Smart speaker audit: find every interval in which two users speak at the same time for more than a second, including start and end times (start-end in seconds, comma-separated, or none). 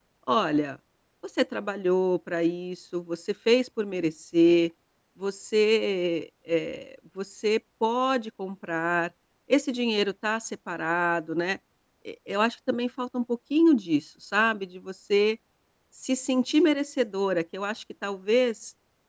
none